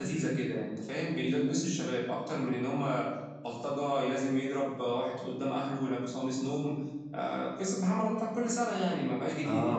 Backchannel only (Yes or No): No